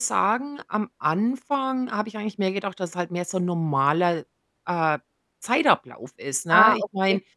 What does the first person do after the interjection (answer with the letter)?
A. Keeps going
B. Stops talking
A